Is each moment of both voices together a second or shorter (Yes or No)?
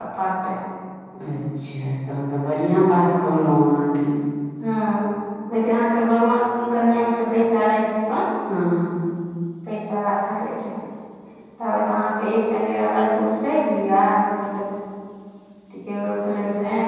Yes